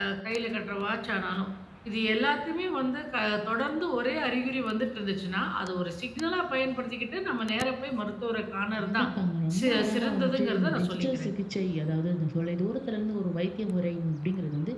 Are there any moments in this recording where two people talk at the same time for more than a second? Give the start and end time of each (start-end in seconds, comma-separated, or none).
9.6-11.3